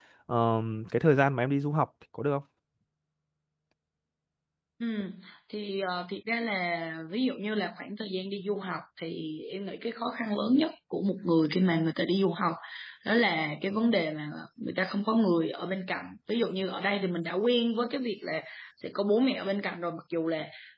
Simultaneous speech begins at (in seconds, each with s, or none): none